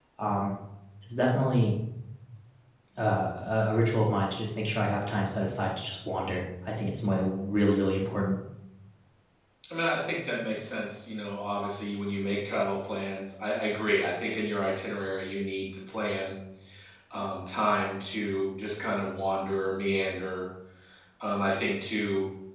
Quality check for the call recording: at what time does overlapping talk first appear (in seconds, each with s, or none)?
none